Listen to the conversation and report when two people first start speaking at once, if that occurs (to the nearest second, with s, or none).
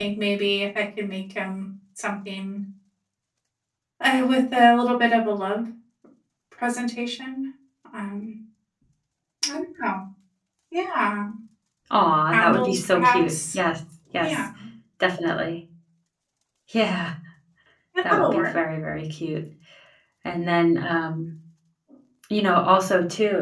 12 s